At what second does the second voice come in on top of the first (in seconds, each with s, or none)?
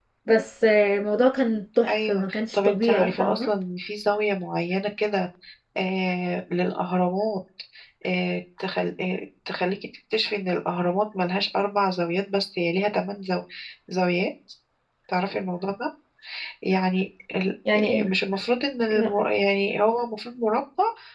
1.9 s